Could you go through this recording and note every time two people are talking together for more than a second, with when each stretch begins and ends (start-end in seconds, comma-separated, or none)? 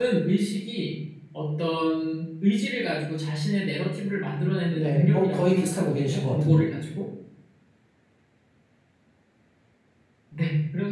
4.8-6.7